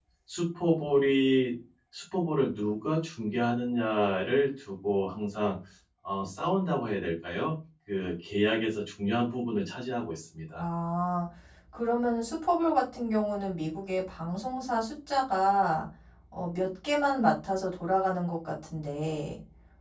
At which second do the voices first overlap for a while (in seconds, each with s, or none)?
none